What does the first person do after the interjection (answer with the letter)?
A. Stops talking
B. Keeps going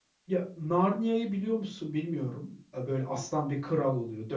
B